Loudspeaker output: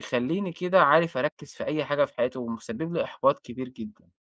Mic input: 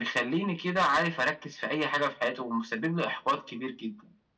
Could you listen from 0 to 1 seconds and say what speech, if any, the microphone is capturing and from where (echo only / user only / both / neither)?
echo only